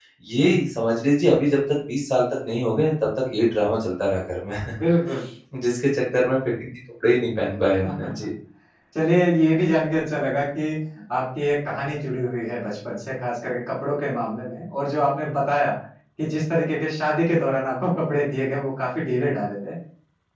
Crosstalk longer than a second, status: none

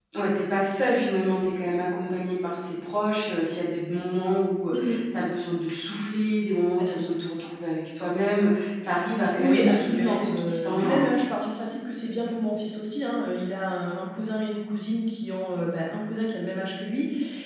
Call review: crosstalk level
present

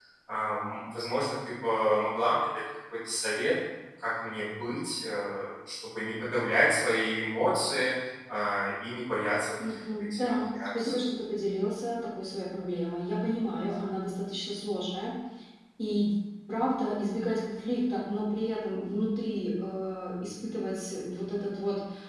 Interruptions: present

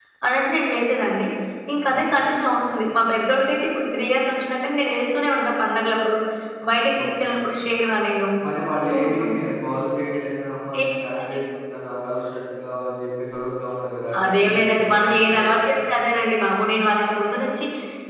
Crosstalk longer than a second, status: present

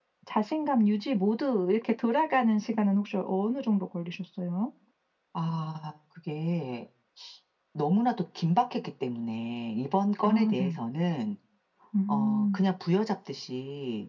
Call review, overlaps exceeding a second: none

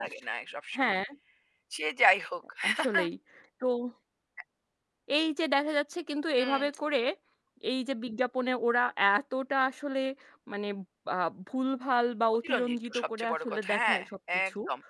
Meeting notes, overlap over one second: present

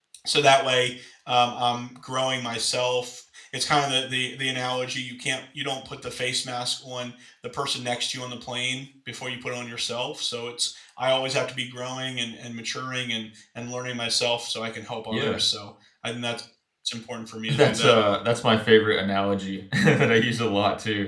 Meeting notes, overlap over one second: none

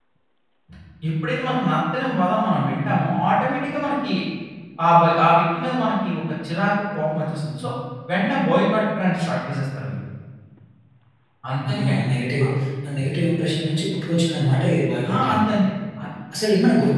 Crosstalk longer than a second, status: none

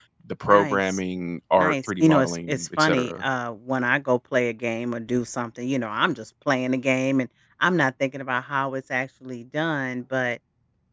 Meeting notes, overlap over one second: present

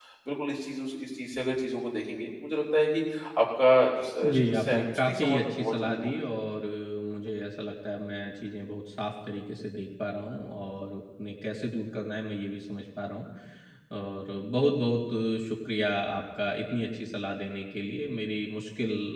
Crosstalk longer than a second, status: present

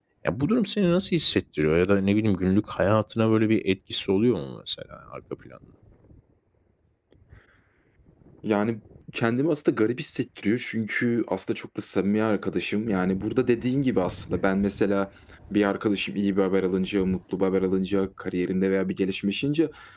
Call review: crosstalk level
none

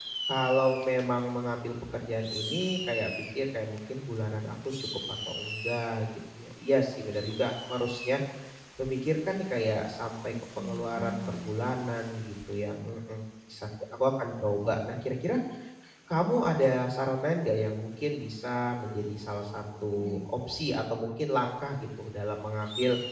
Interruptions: present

